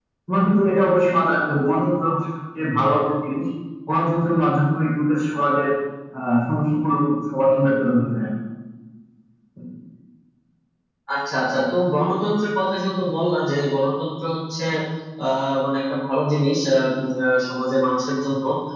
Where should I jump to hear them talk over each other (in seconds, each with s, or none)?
none